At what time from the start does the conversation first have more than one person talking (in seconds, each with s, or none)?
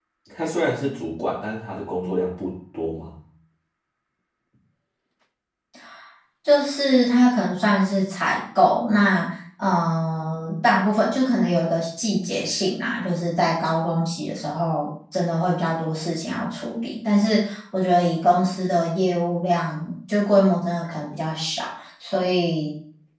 none